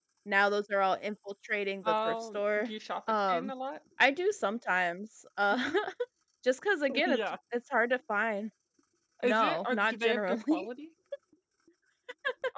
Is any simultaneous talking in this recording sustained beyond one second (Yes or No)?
Yes